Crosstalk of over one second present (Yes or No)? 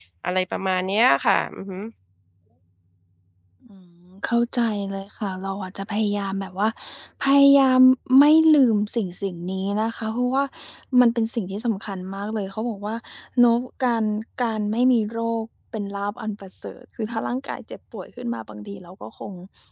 No